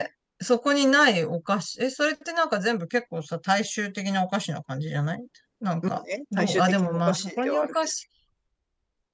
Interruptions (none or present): present